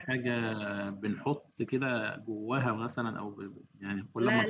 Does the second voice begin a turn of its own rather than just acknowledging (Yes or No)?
Yes